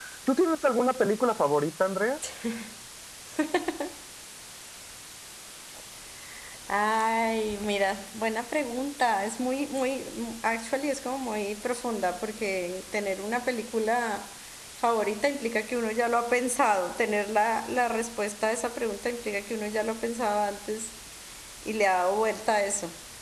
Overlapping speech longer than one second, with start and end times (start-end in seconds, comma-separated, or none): none